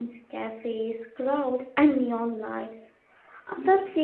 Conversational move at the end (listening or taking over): listening